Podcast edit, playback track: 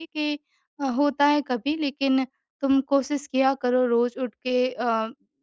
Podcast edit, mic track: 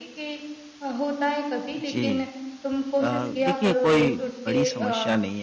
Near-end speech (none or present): present